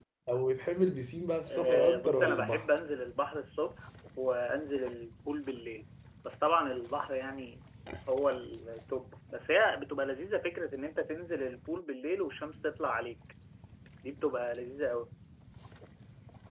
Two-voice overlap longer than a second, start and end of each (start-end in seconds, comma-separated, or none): 1.5-2.7